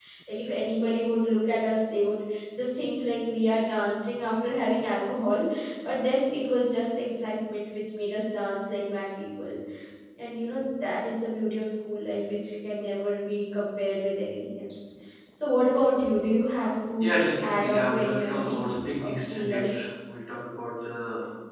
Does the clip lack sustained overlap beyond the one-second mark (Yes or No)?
No